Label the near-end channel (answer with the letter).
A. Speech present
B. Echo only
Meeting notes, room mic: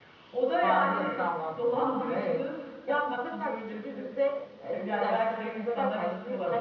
A